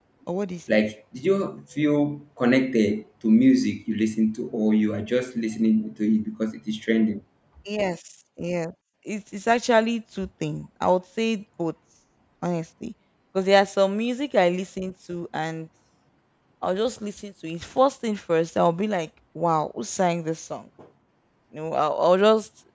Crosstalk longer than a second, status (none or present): none